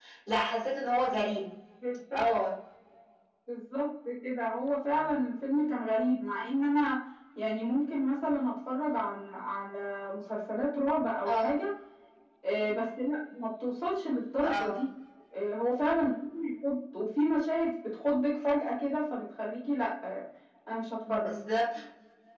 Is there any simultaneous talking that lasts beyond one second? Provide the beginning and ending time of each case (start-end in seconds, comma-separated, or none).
none